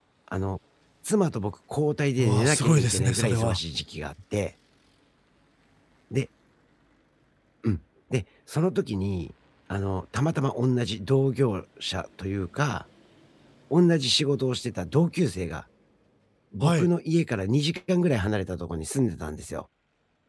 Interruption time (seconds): 2 s

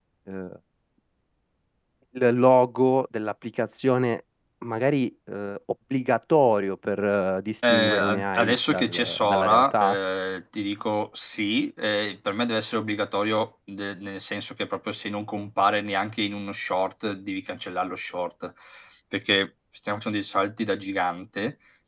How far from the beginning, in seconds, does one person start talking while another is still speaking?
8 s

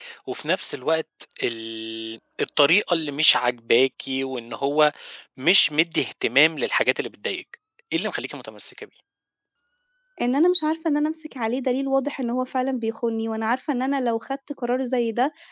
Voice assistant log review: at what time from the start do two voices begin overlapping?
none

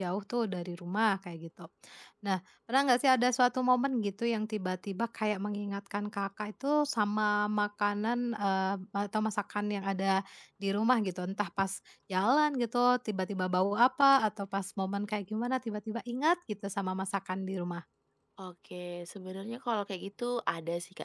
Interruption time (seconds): none

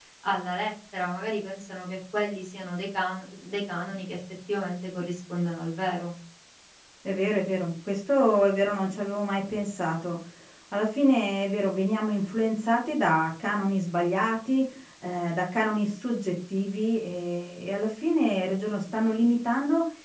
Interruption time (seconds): none

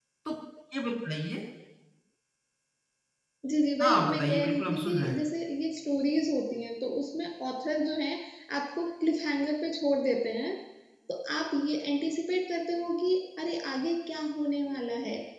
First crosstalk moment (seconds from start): 4 s

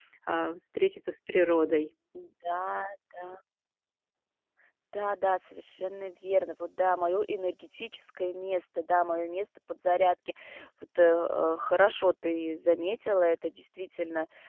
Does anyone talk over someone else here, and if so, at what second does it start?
none

